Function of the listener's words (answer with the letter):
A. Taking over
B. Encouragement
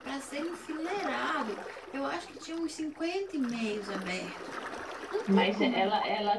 A